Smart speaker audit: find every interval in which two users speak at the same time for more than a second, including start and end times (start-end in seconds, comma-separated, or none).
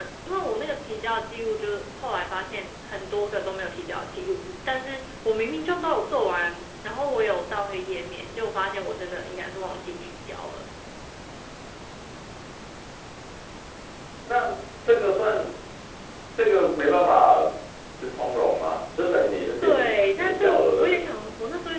19.6-21.0